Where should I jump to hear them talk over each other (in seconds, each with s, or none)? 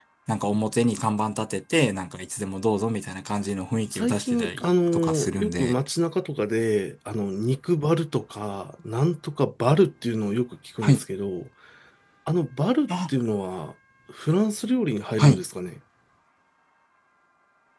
3.9 s